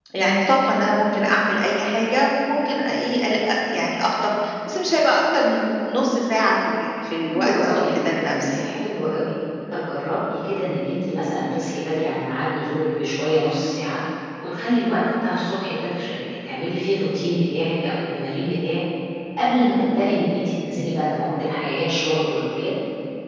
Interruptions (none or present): present